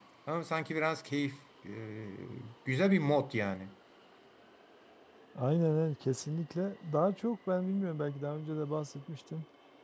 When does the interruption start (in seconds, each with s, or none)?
none